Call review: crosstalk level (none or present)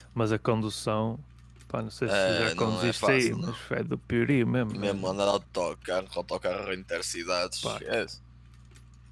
present